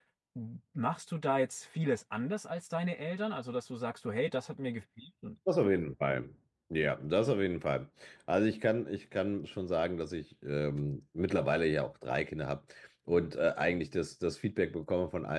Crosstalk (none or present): none